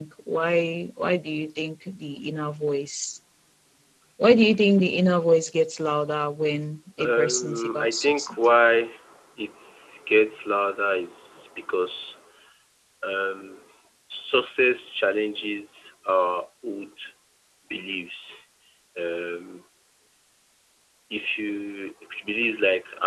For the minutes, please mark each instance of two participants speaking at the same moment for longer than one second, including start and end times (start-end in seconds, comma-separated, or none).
7.0-8.3